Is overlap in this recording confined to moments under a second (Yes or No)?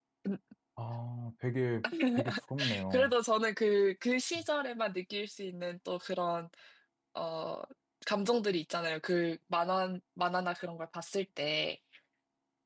Yes